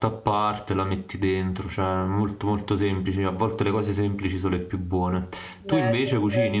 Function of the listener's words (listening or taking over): taking over